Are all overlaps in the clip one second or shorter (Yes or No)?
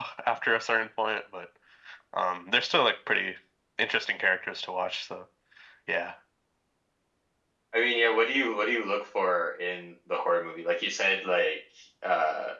Yes